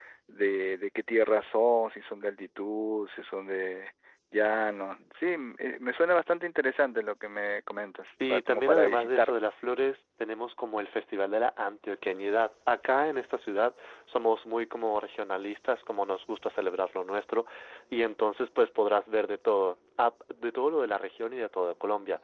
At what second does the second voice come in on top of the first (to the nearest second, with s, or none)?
8 s